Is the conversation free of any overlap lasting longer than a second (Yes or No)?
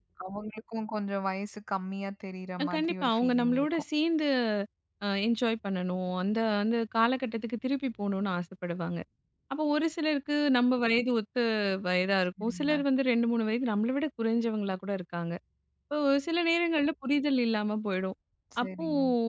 No